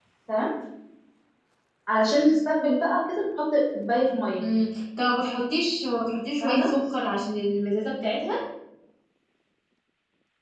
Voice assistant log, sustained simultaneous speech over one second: none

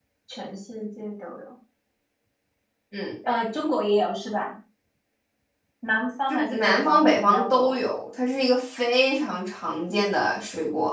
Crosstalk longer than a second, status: present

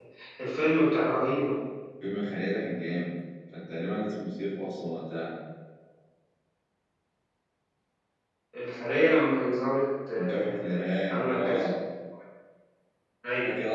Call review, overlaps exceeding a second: present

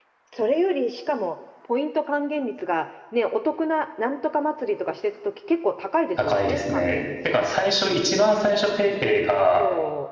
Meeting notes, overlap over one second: present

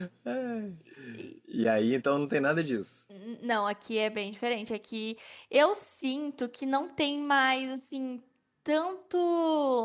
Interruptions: none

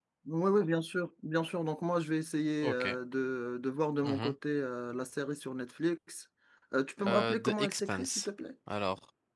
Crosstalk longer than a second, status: present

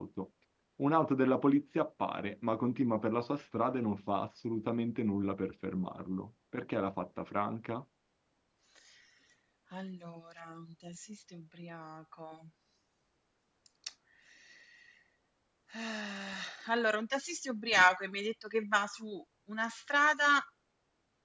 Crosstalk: none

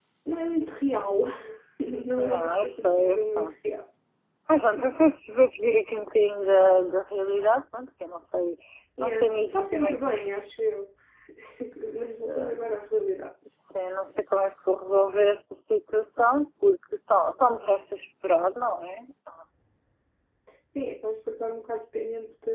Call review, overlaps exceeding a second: present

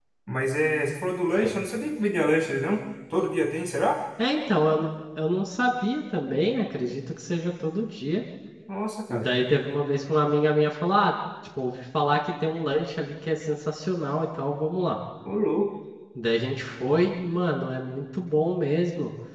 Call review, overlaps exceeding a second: none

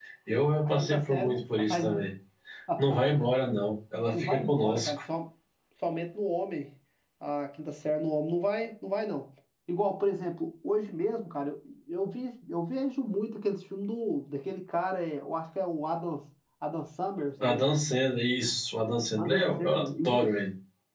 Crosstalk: present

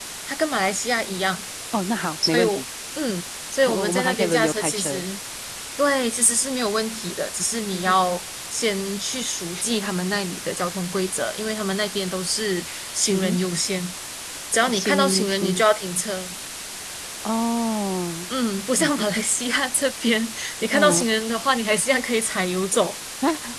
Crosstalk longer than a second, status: present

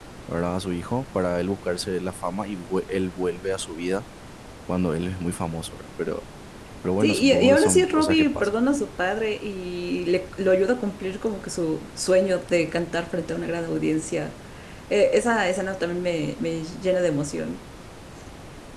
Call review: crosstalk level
present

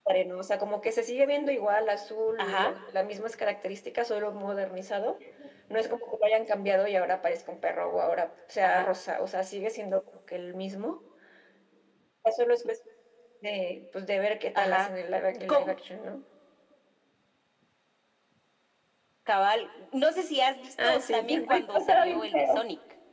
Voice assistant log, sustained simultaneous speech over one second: present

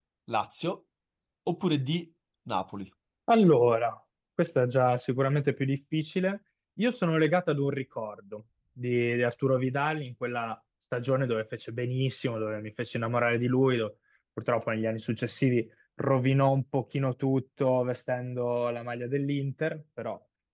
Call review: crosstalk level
none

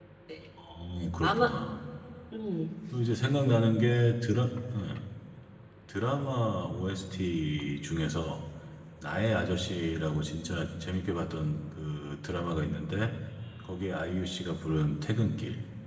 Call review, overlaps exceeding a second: none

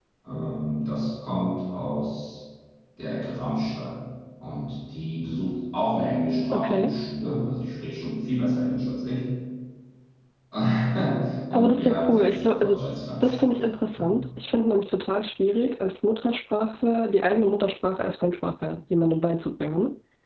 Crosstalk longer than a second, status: present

